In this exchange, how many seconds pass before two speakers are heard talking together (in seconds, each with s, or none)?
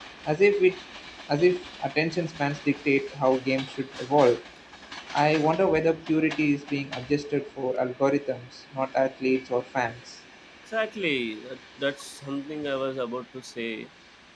none